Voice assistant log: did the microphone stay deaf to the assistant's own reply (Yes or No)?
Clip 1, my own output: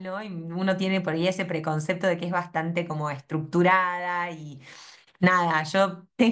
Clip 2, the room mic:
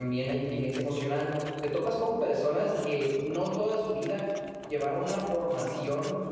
Yes